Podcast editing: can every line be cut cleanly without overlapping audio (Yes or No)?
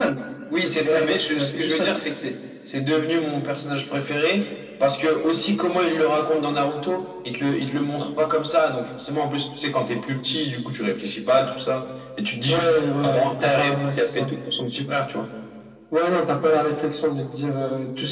No